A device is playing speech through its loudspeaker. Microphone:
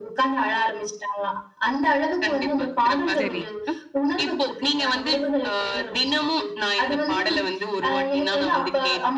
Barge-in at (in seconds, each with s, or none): 3.2 s